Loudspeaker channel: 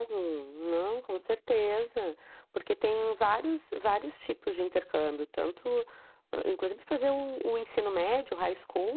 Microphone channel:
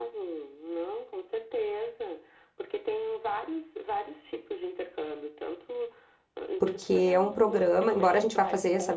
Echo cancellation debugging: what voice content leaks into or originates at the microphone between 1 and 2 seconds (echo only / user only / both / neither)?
echo only